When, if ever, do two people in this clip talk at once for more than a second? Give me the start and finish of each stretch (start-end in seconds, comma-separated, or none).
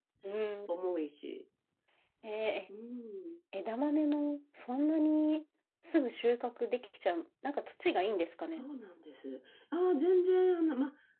none